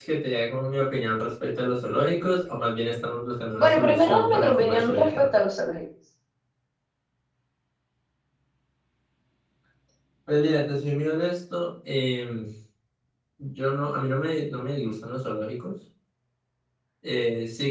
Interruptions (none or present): present